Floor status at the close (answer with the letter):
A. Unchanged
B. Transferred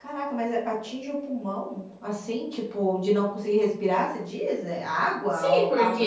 B